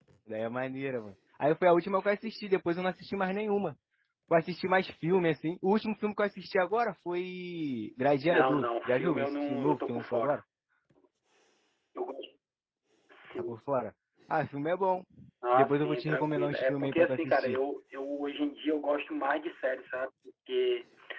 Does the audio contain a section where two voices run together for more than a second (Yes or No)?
Yes